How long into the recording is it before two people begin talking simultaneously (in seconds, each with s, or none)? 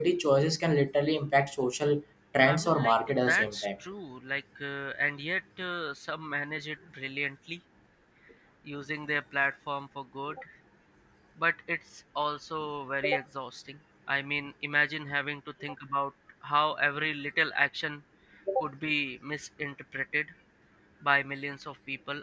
2.4 s